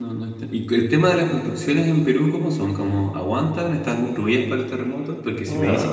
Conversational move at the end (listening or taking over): listening